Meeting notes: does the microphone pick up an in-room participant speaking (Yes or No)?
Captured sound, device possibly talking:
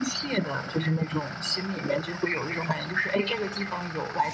No